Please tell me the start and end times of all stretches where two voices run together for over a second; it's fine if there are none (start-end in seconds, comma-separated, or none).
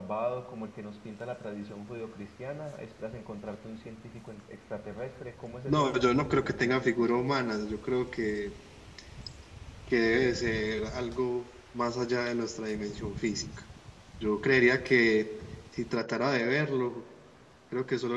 5.7-7.2